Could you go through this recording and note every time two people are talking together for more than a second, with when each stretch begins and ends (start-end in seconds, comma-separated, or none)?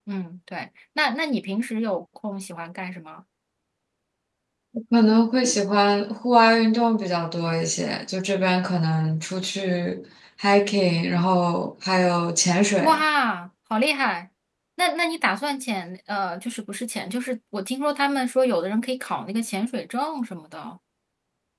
none